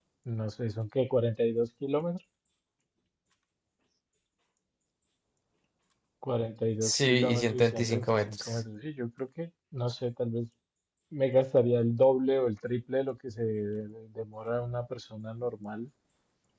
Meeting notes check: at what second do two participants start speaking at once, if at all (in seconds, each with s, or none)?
6.8 s